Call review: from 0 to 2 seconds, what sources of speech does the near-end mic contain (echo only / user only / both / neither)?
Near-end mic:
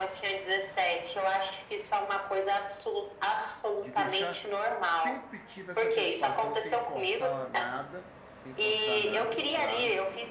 echo only